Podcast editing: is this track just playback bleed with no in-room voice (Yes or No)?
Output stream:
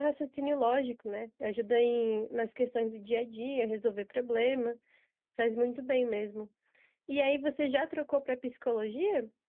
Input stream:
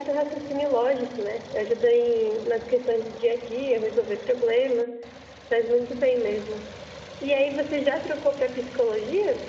Yes